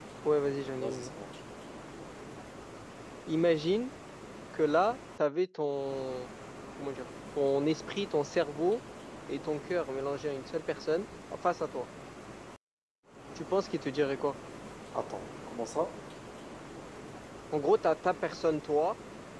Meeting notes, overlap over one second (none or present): none